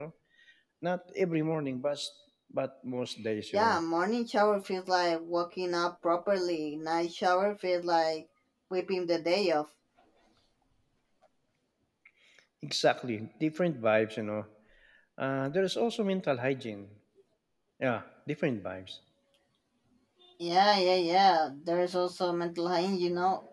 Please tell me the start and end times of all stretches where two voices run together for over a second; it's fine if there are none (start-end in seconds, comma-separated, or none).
none